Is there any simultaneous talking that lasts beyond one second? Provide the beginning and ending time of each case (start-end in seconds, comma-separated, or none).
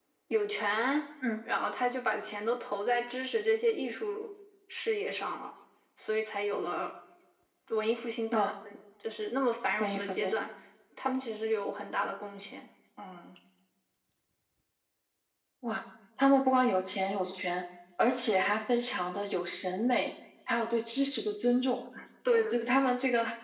none